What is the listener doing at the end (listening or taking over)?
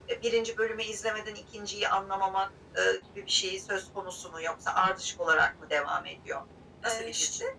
taking over